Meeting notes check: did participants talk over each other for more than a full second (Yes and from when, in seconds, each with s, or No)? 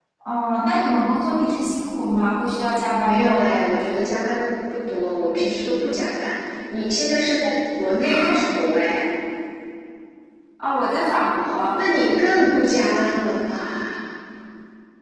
No